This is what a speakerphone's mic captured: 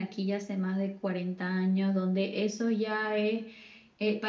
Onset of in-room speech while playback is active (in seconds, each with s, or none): none